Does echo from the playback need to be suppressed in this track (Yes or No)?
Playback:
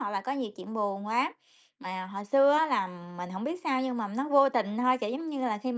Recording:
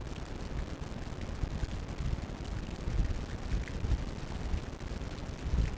No